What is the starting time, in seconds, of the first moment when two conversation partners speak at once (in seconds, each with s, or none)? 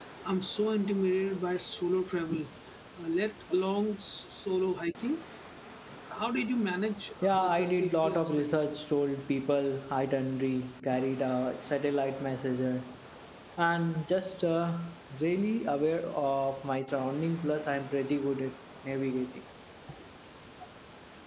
7.2 s